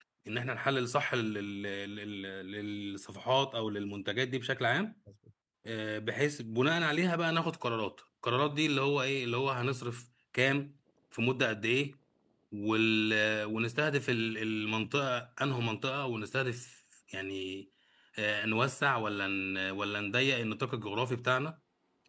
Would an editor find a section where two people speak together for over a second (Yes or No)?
No